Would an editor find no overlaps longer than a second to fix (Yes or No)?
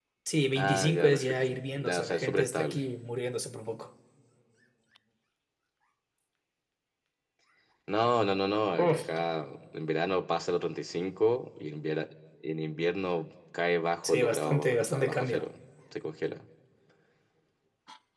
No